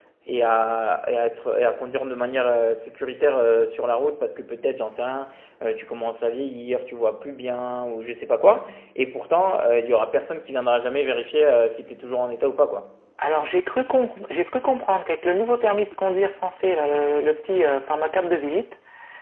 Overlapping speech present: No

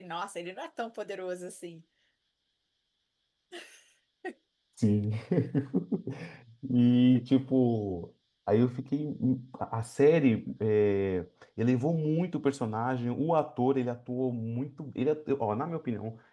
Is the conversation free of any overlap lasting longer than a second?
Yes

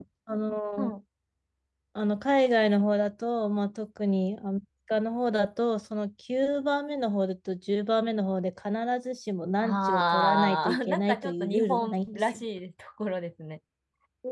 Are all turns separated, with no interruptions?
No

